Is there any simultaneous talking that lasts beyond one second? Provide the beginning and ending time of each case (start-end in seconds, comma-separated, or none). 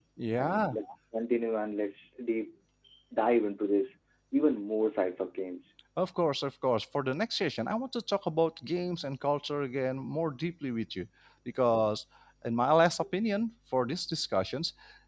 none